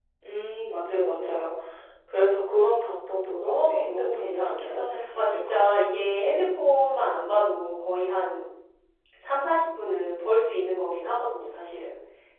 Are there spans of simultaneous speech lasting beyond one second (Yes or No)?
Yes